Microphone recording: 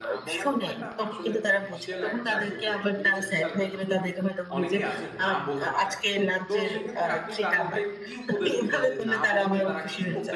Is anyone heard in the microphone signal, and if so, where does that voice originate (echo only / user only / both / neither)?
both